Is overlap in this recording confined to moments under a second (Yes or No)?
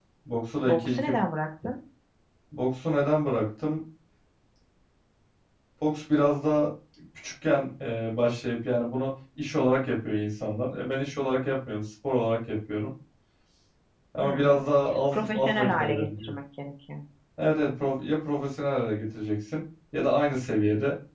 No